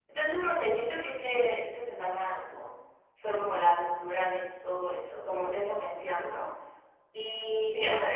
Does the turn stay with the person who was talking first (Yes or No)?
Yes